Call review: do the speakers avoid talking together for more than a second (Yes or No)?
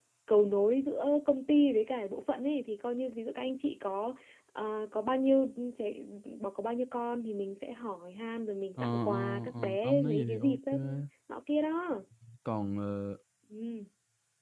No